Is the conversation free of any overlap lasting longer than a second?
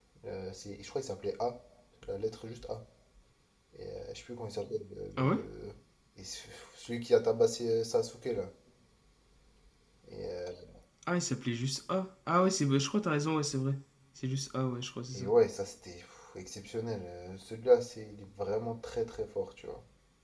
Yes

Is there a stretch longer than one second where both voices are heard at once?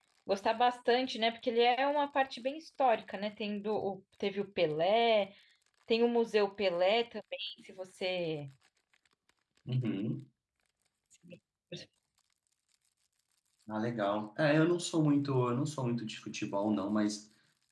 No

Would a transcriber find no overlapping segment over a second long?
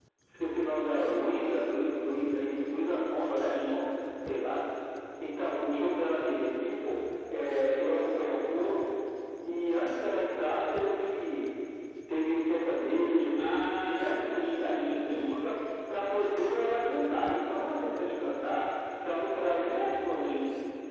No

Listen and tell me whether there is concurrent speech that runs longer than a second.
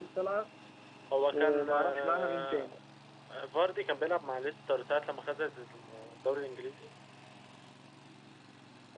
Yes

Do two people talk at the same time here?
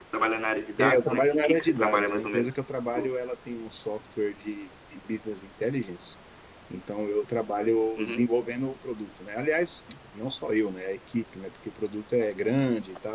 Yes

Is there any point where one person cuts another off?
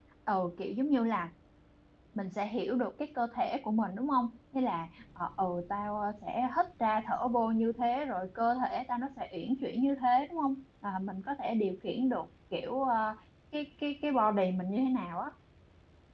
No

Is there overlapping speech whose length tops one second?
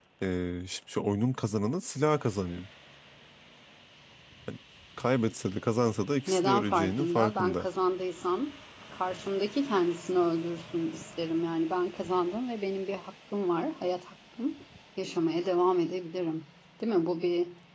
Yes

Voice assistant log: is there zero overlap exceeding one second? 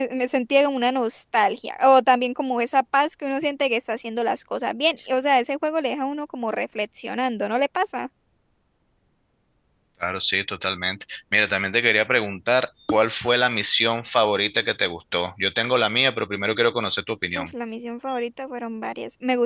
Yes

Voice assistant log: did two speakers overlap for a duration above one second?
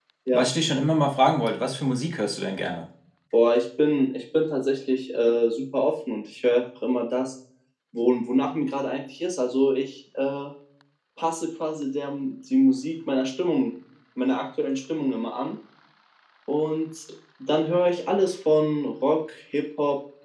No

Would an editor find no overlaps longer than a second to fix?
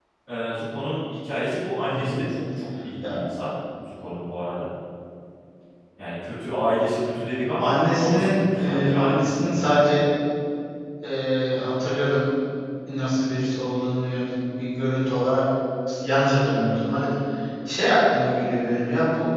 No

